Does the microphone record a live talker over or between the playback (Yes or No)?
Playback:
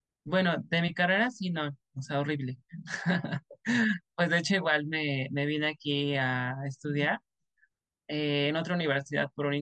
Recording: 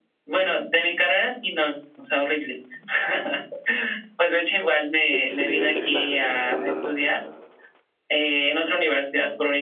Yes